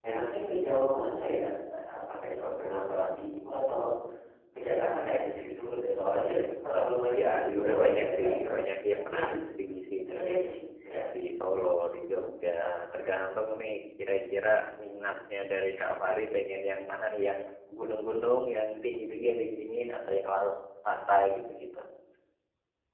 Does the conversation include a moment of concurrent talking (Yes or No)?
Yes